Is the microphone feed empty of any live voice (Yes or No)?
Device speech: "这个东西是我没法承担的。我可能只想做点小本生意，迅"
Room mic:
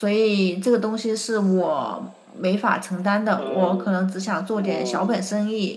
No